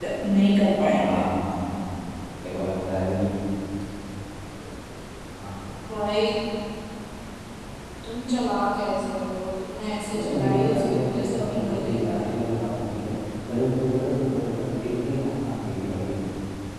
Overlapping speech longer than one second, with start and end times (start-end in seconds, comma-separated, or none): 10.1-12.3